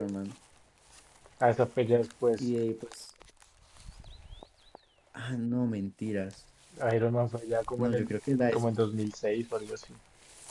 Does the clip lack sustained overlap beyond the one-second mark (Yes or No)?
Yes